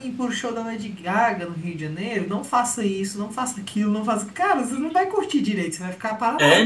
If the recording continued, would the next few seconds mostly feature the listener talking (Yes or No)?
Yes